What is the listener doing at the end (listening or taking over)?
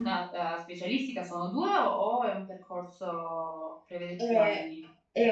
taking over